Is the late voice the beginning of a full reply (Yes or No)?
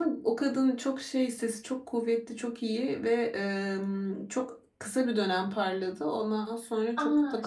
Yes